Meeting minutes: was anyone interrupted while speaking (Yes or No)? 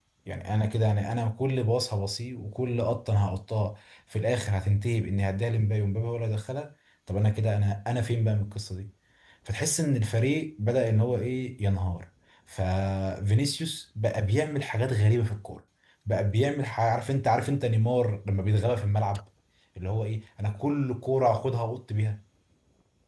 No